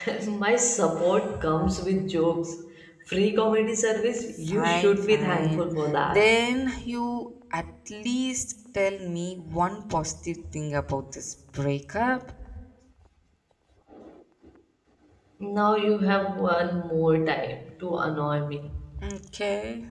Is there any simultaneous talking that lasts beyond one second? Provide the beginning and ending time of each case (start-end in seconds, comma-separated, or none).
4.5-5.7